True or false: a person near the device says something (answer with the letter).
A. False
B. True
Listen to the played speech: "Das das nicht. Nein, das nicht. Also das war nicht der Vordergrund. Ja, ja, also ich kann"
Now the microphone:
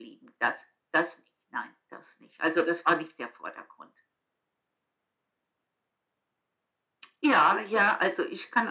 B